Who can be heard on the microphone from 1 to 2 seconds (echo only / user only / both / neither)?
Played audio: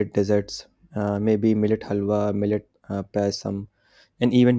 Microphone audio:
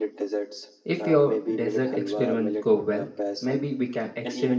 both